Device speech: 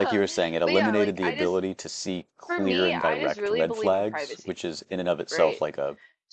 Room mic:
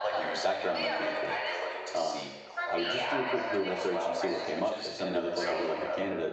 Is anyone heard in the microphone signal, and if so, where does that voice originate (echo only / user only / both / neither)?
both